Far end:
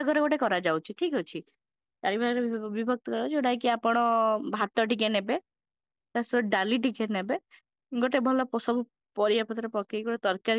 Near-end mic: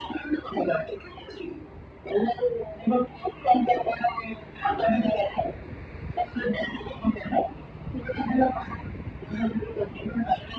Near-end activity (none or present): none